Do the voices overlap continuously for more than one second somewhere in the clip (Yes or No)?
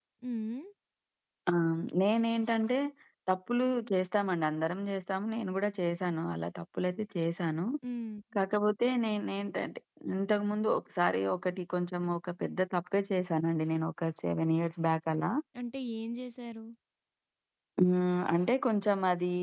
No